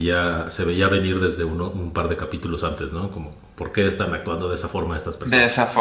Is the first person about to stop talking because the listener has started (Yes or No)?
Yes